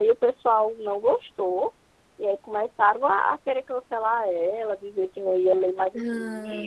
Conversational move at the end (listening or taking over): listening